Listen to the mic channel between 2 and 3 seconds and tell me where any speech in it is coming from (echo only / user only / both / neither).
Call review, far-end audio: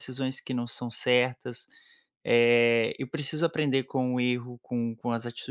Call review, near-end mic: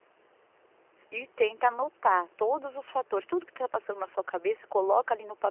user only